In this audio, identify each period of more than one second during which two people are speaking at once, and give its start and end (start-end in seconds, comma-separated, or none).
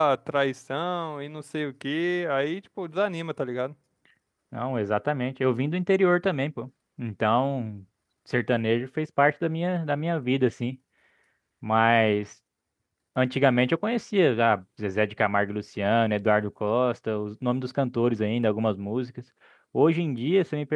none